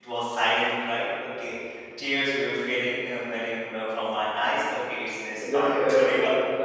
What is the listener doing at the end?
taking over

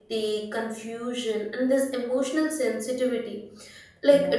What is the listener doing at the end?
listening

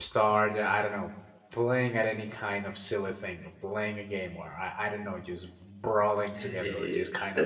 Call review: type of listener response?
taking over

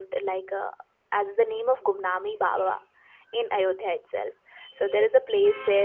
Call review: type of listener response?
listening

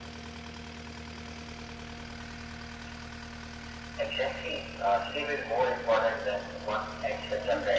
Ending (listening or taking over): taking over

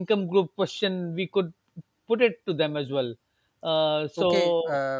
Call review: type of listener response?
taking over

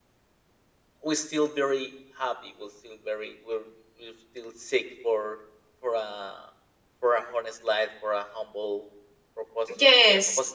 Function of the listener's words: listening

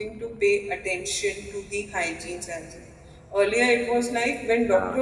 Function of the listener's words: listening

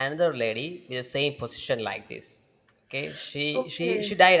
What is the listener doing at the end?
listening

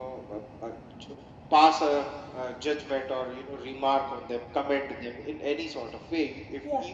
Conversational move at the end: listening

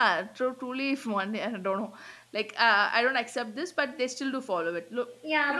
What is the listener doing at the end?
taking over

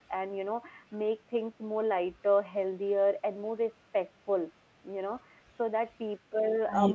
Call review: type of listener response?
listening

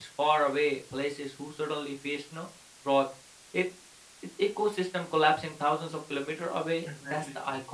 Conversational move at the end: listening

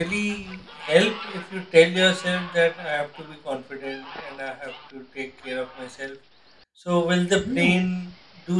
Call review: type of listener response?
listening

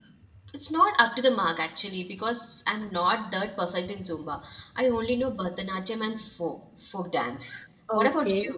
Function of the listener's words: taking over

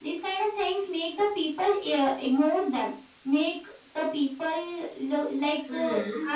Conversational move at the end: listening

